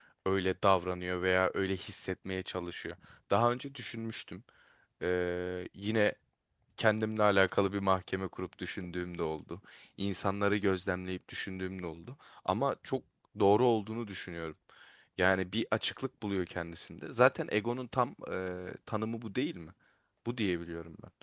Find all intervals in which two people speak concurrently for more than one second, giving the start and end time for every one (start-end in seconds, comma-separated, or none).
none